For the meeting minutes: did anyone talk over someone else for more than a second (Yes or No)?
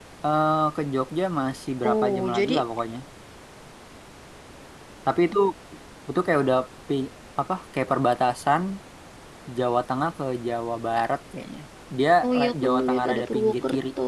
Yes